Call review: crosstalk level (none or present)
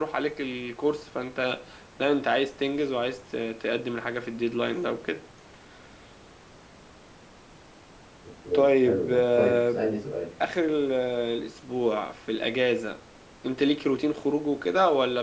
present